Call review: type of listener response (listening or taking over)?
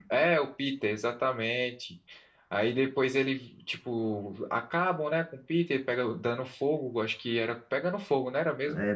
taking over